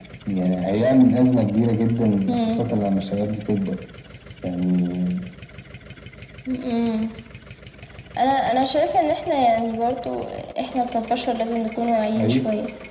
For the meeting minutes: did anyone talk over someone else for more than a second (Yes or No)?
No